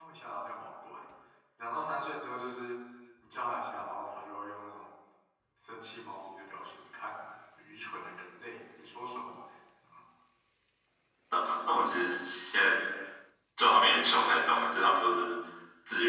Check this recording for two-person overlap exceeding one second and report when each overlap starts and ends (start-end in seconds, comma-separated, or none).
none